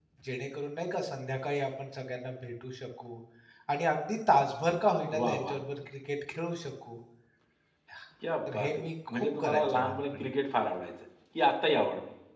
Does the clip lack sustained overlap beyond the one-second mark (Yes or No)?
No